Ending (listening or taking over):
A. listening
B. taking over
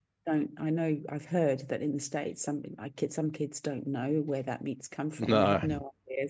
A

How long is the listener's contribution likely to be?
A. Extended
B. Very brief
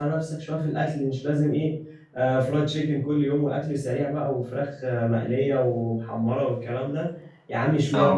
B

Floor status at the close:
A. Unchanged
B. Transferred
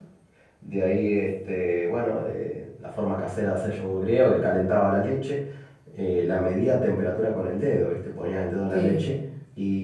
A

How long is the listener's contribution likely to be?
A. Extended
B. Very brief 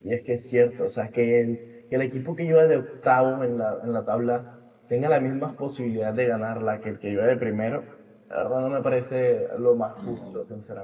A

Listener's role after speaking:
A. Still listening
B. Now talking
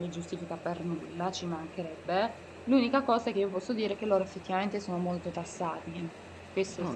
B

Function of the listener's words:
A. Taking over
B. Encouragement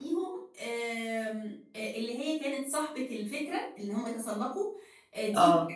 B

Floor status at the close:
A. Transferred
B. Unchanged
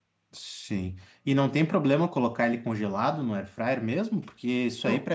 B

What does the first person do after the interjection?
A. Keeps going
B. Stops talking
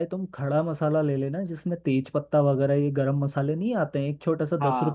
B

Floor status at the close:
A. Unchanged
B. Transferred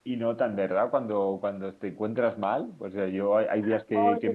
A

